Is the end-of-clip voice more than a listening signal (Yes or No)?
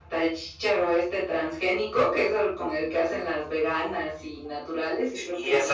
Yes